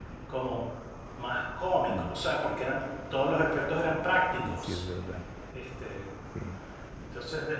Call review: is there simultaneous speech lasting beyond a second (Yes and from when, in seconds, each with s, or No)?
No